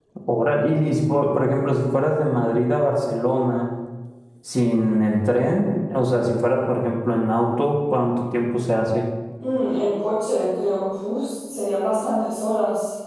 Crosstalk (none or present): none